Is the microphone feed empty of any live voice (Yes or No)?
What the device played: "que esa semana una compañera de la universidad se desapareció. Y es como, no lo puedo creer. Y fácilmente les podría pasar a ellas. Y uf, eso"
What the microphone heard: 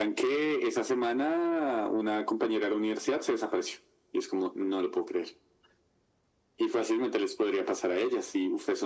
Yes